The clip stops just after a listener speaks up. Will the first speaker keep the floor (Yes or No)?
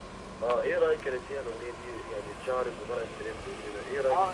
No